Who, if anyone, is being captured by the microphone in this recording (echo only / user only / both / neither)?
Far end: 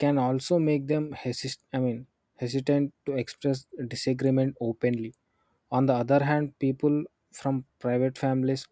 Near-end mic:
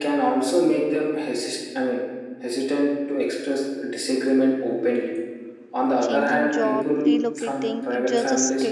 both